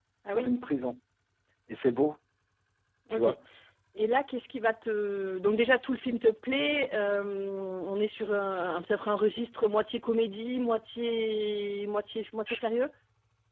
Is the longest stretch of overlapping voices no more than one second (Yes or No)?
Yes